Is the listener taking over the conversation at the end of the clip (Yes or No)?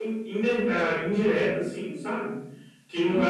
No